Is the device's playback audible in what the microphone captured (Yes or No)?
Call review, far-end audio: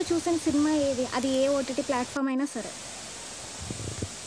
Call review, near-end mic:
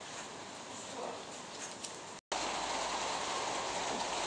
No